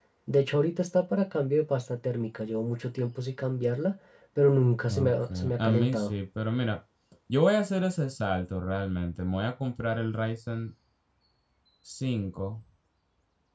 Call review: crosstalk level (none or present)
present